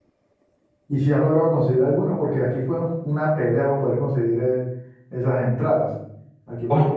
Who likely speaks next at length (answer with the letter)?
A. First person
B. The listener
A